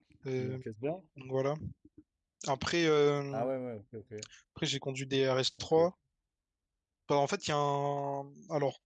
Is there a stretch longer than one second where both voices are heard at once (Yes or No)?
No